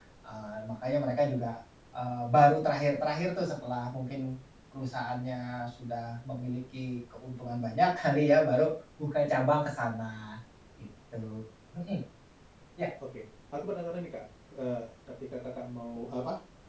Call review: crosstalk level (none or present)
none